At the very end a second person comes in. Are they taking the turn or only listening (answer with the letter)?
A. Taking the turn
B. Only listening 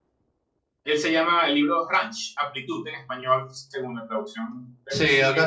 A